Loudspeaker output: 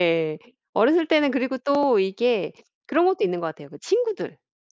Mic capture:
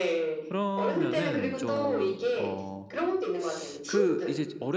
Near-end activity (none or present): present